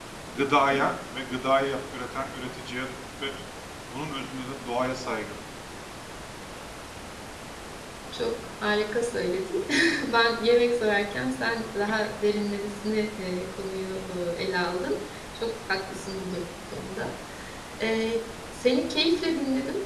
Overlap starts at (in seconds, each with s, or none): none